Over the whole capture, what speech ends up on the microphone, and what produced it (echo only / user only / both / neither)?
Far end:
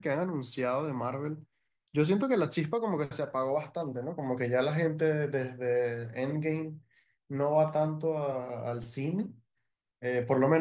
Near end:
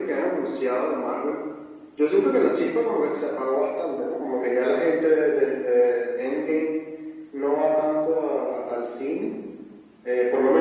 echo only